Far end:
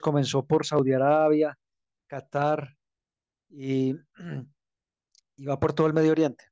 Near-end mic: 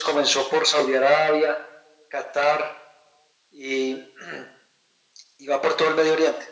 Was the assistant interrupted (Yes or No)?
No